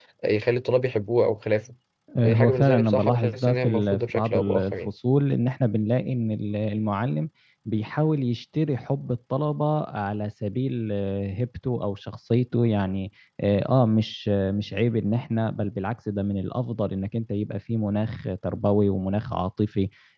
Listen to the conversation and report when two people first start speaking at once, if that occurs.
2 s

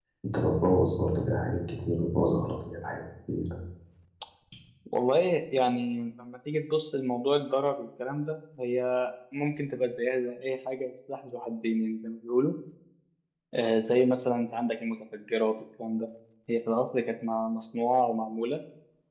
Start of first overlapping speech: none

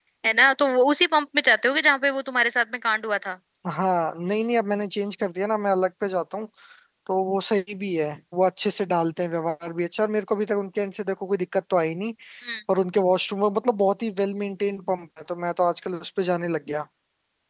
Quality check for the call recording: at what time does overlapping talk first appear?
none

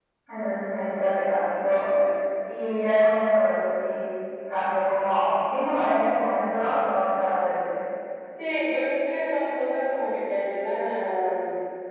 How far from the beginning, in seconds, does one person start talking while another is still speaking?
none

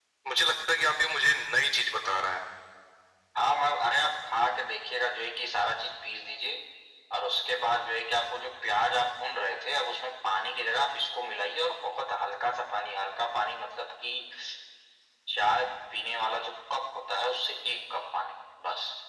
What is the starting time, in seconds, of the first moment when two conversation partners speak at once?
none

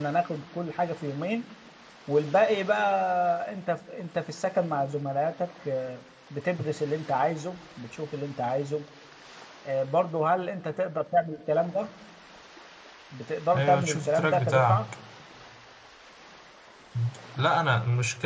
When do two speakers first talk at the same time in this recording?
14 s

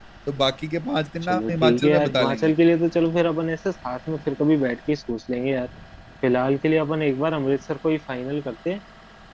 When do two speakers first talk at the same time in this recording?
1 s

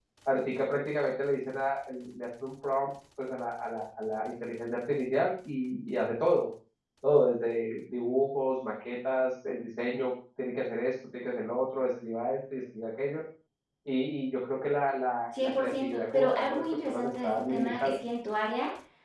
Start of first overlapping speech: 15 s

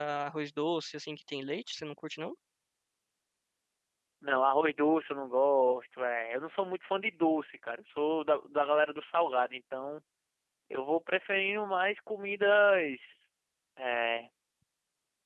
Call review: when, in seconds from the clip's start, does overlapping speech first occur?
none

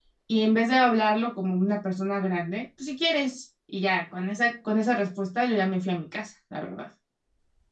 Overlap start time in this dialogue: none

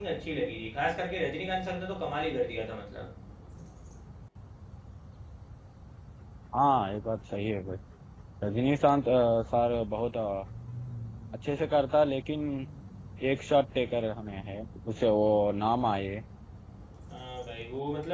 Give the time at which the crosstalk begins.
none

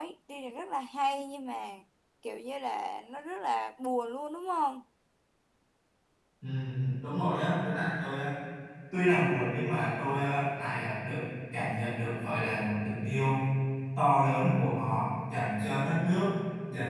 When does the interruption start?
none

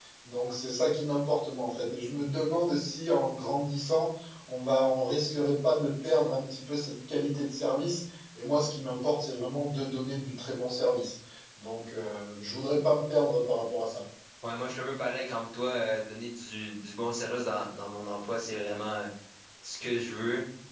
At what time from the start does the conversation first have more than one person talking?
none

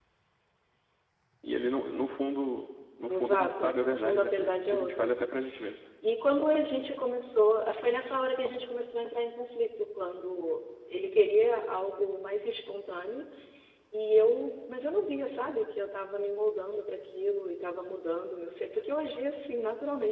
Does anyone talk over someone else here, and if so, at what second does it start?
3 s

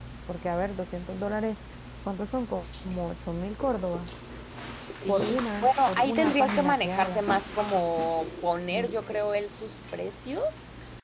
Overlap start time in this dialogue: 5 s

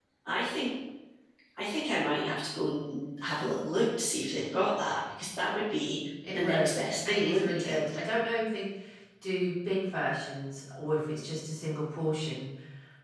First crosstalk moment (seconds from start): 6 s

